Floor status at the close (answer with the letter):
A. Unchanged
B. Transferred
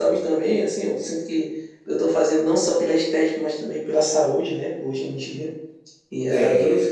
A